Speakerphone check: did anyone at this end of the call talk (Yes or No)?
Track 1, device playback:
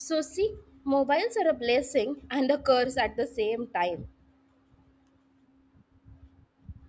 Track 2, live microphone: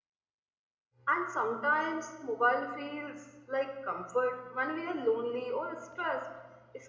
Yes